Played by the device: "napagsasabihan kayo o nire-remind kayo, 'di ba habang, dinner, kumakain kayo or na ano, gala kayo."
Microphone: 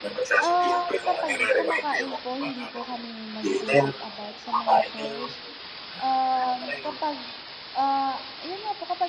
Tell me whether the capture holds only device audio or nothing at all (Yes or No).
No